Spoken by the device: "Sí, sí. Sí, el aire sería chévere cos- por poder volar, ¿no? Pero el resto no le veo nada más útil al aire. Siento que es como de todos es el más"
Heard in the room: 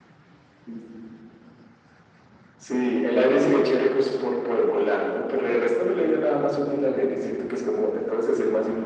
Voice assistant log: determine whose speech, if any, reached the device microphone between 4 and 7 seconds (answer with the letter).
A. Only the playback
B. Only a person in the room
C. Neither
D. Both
A